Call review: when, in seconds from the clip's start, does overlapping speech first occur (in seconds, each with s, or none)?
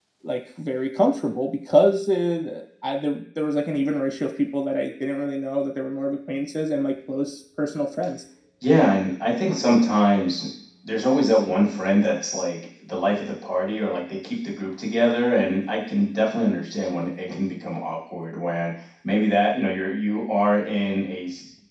none